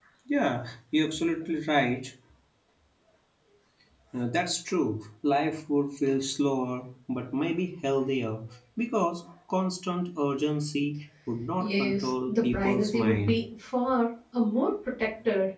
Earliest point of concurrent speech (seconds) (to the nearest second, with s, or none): 12 s